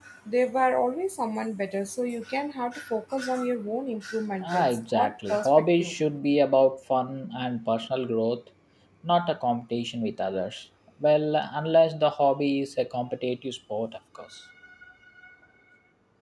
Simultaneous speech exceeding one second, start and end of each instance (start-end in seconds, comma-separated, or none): 4.4-5.9